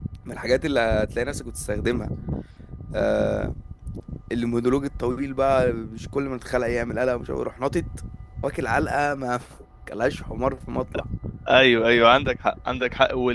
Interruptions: none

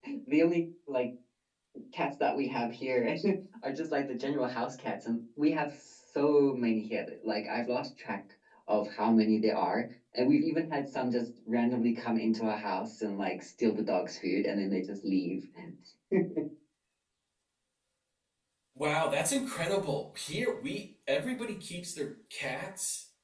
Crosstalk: none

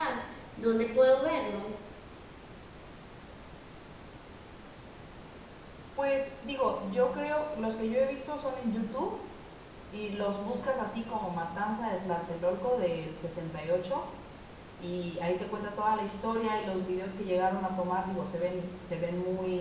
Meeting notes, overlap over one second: none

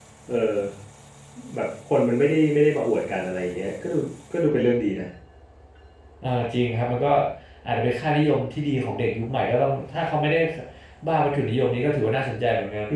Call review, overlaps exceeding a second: none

